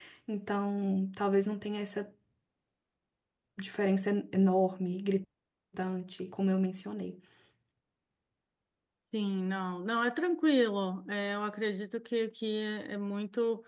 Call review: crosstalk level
none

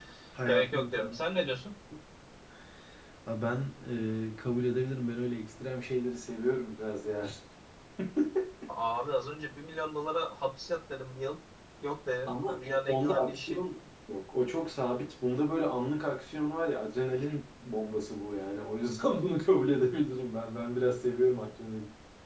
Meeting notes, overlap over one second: present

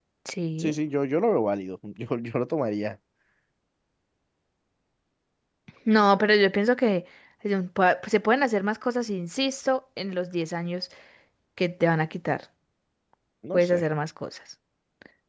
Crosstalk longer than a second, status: none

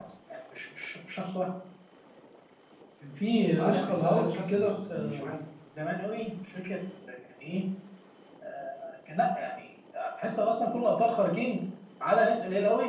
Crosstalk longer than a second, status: present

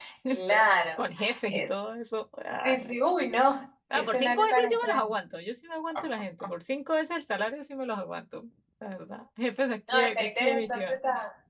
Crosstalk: present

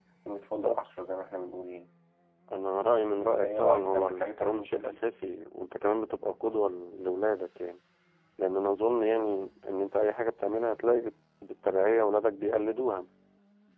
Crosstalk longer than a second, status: present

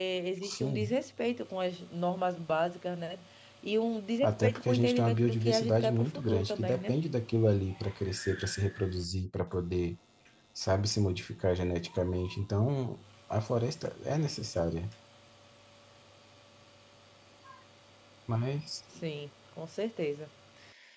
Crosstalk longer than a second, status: present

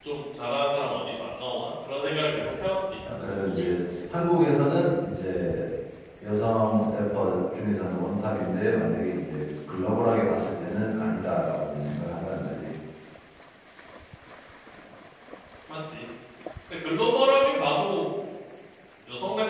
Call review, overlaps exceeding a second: none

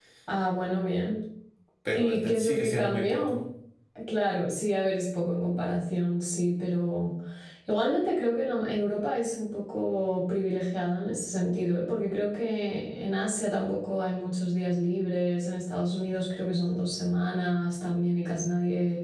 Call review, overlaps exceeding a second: present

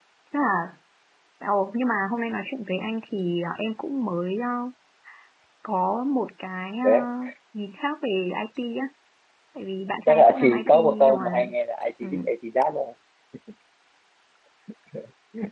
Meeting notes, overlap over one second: present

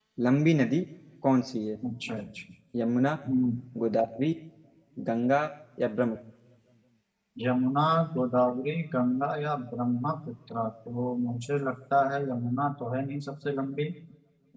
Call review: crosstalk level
none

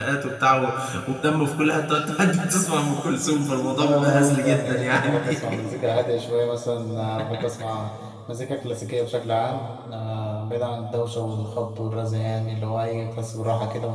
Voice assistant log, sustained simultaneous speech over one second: present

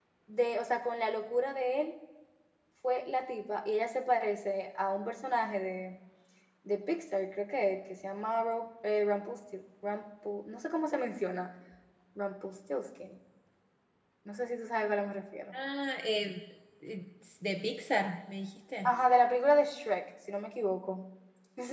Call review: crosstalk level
none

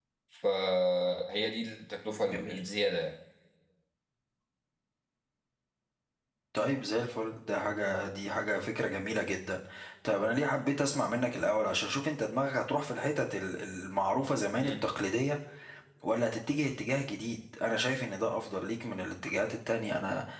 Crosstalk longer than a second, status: none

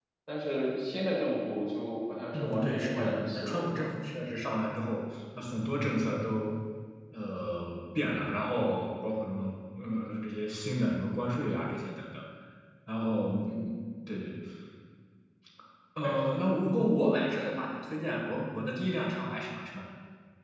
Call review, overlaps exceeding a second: present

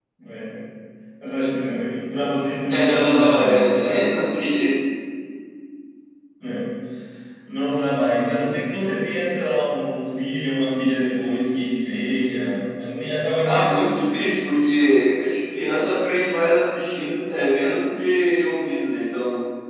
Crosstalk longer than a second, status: present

